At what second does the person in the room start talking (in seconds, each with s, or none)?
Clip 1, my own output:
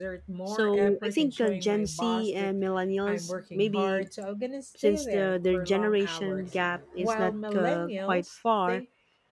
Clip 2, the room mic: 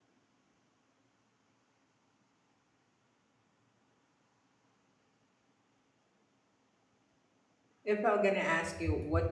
7.8 s